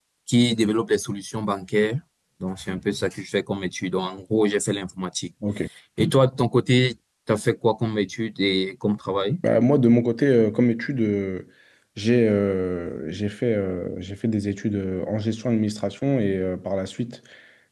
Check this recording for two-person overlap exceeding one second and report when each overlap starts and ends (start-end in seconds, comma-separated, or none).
none